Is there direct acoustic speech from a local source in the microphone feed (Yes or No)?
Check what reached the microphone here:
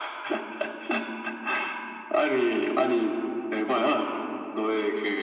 No